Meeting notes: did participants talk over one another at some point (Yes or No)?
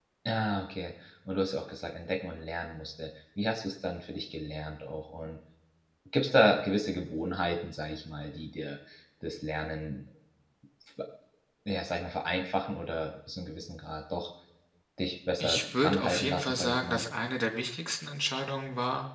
Yes